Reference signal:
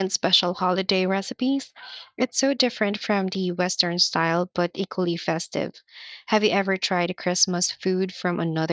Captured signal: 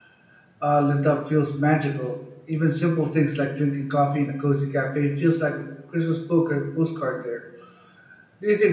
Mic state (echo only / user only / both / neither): user only